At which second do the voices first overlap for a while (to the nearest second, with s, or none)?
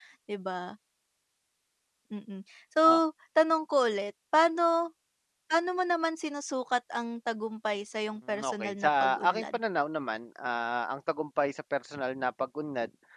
8 s